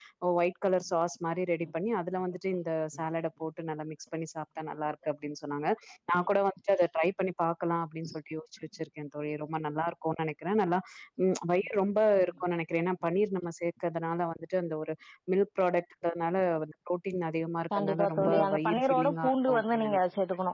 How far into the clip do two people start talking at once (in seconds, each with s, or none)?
17.7 s